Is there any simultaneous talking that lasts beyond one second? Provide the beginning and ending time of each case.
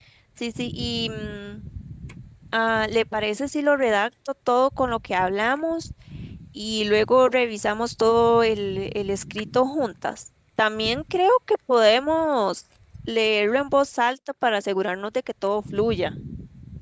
none

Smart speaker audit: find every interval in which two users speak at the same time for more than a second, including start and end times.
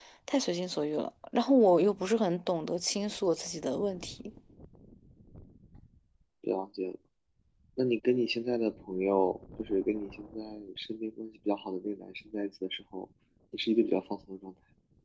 none

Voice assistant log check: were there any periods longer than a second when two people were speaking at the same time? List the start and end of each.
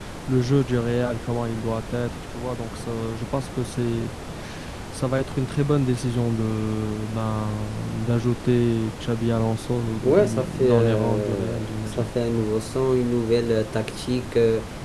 10.0-12.1

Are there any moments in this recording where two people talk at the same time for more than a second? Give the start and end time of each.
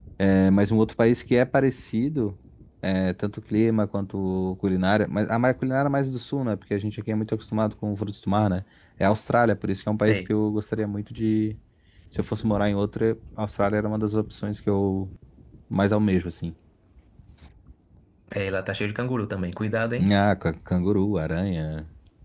none

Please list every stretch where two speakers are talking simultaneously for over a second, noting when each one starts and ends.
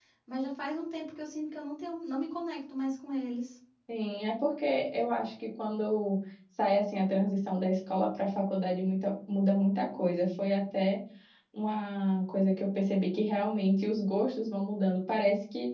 none

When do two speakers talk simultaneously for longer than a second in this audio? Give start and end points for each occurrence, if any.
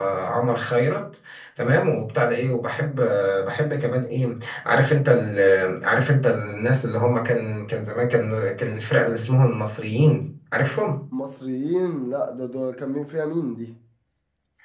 none

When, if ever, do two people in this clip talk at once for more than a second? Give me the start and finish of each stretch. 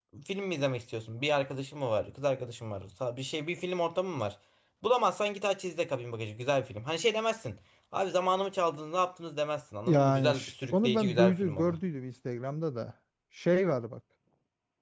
9.9-11.8

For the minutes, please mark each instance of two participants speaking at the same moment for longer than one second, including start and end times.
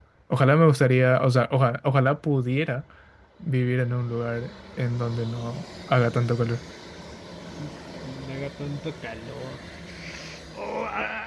none

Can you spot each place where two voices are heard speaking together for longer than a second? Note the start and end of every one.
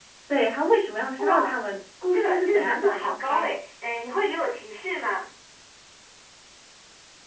2.1-3.5

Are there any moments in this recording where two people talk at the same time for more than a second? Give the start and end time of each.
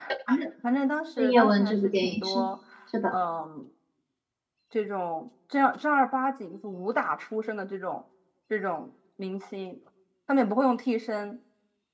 1.2-2.4

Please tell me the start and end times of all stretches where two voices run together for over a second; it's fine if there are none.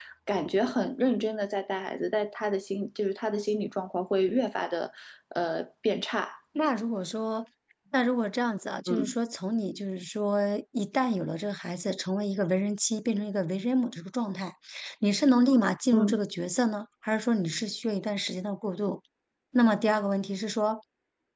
none

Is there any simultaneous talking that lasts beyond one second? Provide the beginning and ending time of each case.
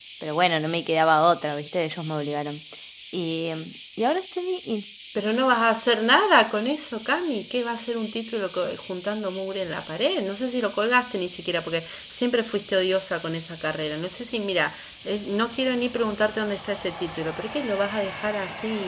none

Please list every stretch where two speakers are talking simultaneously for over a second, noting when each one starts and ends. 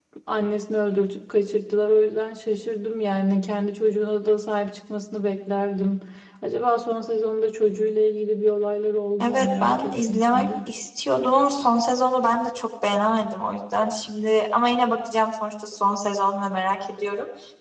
9.2-10.5

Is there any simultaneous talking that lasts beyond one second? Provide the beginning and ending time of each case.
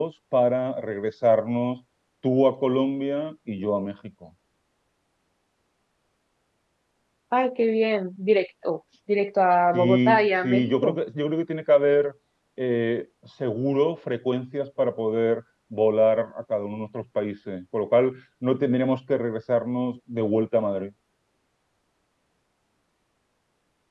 9.7-11.0

